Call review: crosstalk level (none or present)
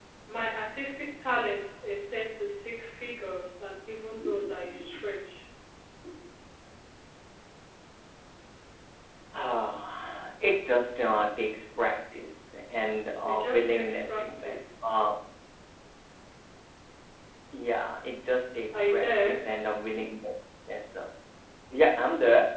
present